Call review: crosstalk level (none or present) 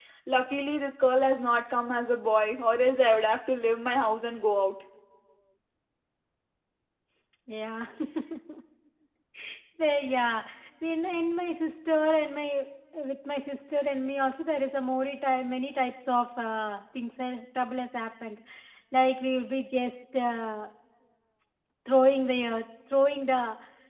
none